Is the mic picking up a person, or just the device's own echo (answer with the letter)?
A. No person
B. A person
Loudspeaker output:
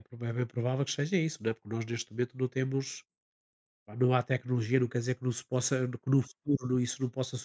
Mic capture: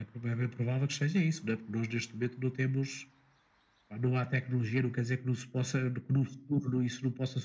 A